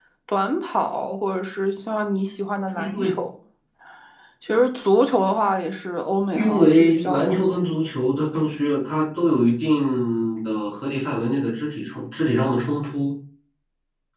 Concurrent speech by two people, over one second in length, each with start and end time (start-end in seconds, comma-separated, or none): 6.4-7.6